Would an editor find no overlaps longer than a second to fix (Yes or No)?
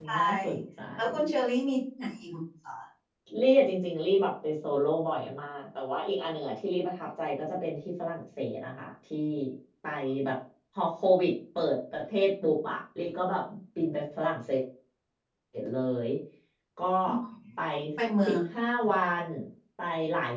Yes